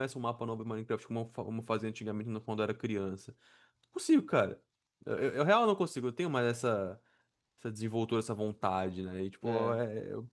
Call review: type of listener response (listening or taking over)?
listening